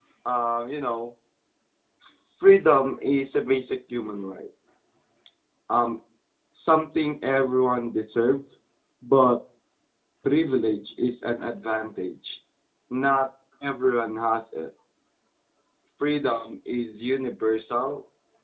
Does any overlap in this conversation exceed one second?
No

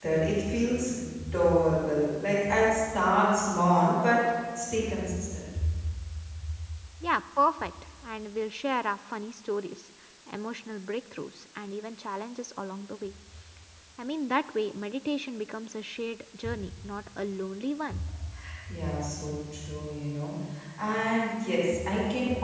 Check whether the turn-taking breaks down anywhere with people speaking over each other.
No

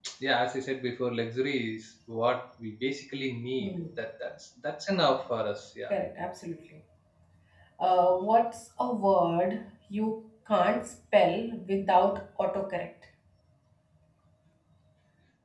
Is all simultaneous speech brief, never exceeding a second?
Yes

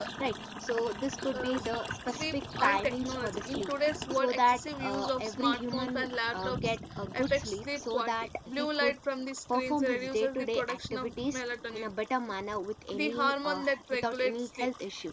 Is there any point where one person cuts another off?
Yes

